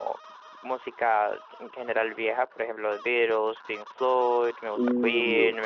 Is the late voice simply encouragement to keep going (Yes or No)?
Yes